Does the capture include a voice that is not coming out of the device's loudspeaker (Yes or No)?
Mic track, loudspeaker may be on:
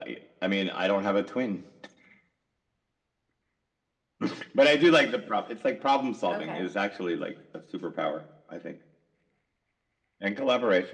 Yes